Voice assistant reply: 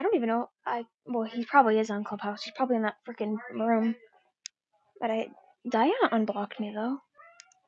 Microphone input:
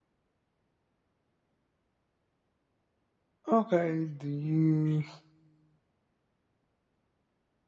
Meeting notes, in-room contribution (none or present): present